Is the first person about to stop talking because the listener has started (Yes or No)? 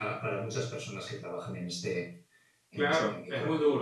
Yes